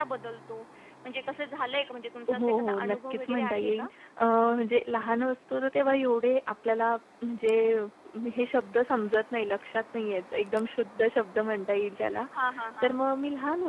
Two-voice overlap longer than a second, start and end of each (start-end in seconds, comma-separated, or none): 2.3-3.9